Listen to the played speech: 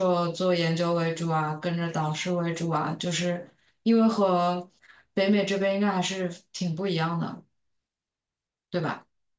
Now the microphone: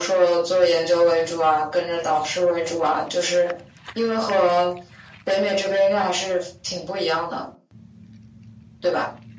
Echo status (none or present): present